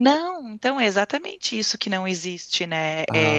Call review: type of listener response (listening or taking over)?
listening